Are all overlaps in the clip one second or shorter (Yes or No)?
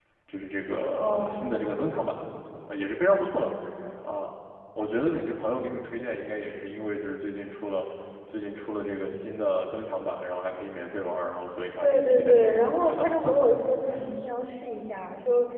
No